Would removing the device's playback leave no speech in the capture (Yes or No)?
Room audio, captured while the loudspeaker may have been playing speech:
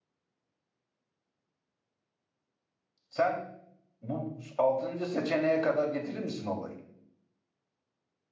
No